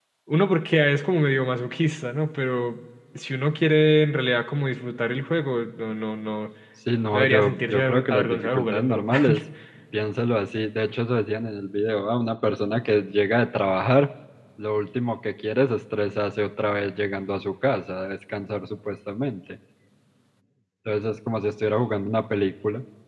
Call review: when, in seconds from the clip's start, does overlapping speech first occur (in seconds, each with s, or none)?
7.1 s